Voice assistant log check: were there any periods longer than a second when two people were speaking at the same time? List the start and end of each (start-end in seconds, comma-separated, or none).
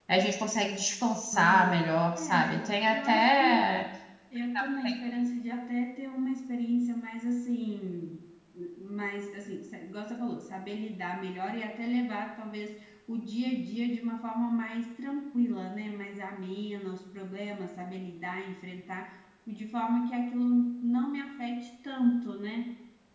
2.2-3.7